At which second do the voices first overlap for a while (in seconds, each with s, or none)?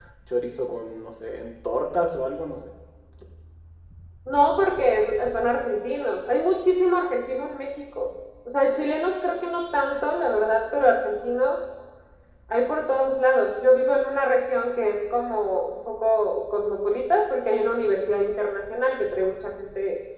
none